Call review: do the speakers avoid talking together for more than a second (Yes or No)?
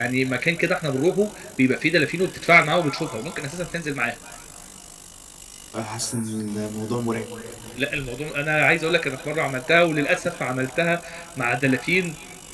Yes